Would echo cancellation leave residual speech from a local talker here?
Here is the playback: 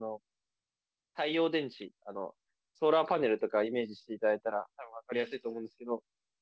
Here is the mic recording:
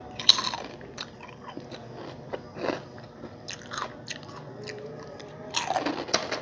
No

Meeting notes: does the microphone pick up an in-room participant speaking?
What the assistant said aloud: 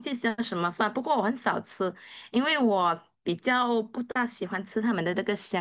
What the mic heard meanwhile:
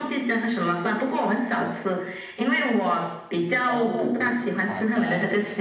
Yes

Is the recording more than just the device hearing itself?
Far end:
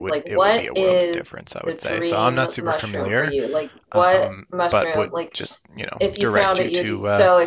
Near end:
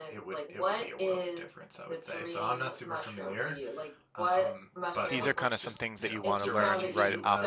Yes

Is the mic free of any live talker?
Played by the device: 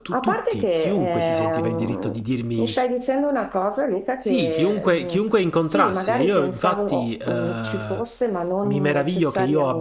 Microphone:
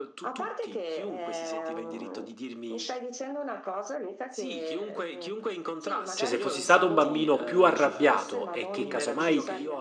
No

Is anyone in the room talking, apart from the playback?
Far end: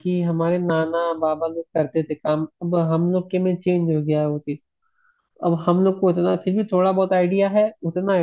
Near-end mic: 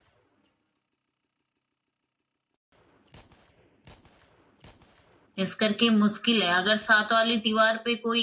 Yes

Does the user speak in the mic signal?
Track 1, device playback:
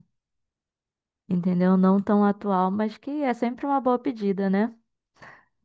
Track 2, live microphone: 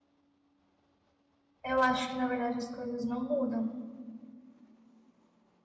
Yes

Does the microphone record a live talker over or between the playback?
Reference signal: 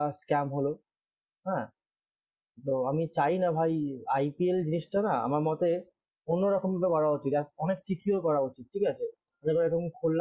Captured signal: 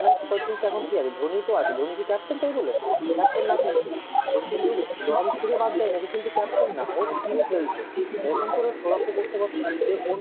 Yes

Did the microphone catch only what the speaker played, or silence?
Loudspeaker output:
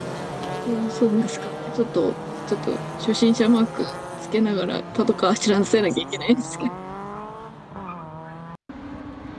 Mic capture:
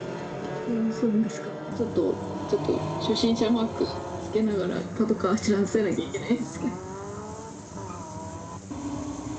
Yes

